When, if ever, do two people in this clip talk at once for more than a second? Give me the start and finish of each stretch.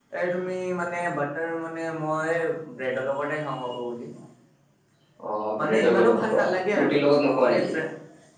5.6-7.6

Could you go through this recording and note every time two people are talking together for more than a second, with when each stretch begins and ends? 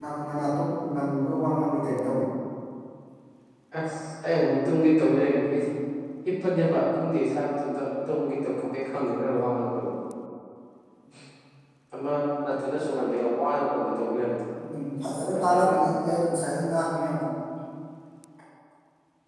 none

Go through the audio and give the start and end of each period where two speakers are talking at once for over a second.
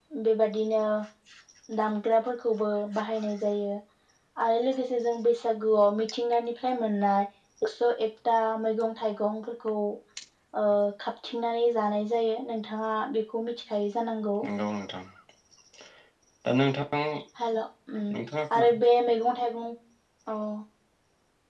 none

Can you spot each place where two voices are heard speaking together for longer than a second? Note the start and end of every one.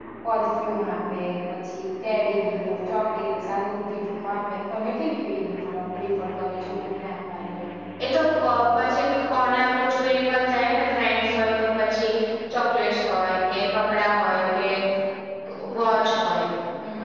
none

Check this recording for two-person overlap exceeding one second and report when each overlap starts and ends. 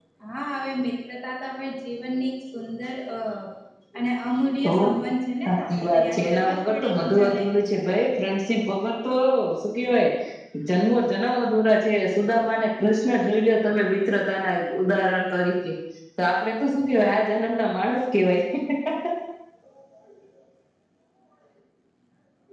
5.4-7.4

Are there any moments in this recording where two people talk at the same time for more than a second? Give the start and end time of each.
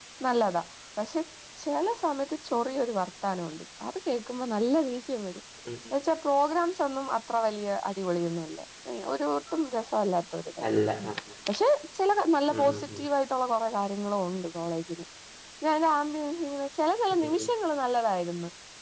none

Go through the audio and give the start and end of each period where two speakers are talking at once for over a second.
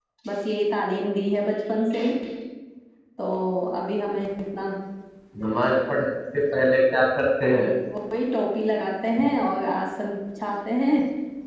none

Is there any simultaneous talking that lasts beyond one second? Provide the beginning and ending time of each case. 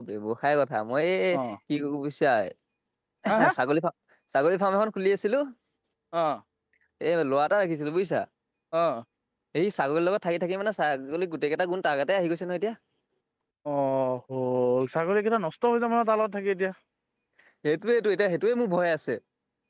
none

